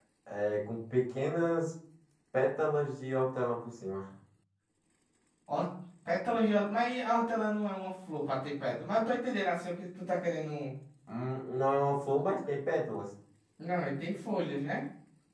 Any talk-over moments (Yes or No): No